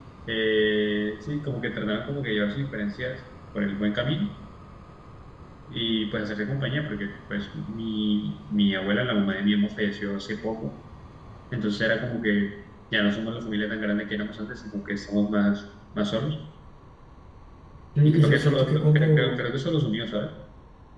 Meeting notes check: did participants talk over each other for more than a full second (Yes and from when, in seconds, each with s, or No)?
Yes, from 18.0 s